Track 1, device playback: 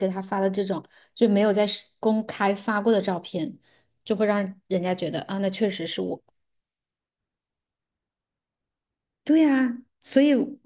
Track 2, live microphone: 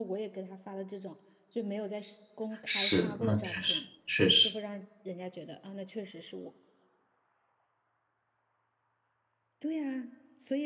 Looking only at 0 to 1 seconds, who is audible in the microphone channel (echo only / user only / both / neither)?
echo only